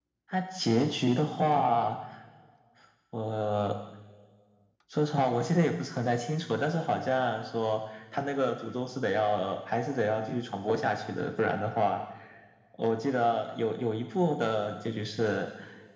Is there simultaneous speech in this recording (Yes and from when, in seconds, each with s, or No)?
No